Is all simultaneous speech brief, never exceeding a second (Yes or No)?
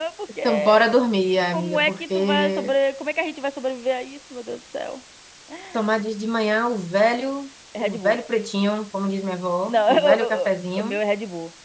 No